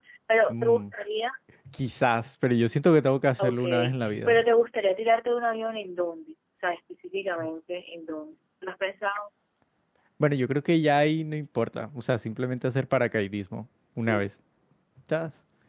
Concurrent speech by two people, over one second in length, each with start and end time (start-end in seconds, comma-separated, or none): none